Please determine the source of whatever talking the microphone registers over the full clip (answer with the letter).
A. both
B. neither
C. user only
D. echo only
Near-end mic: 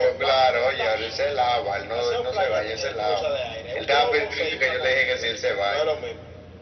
D